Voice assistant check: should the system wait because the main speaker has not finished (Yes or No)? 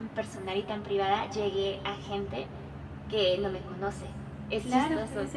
No